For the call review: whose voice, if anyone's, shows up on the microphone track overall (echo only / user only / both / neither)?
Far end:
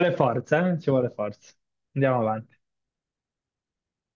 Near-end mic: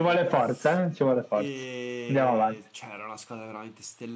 both